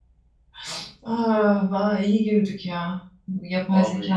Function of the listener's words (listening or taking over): listening